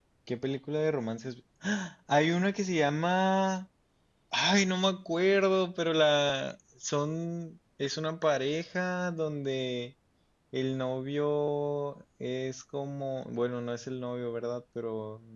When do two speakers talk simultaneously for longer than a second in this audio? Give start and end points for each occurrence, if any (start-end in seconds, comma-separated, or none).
none